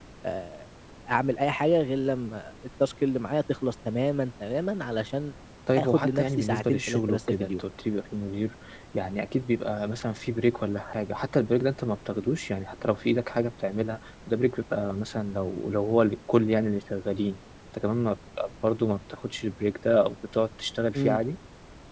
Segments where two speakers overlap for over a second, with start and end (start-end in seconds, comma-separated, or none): 5.8-7.6